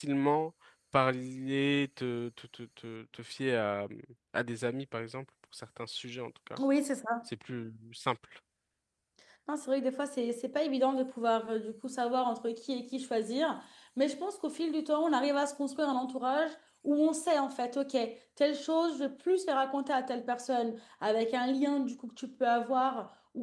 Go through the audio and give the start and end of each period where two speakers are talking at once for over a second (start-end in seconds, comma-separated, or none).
none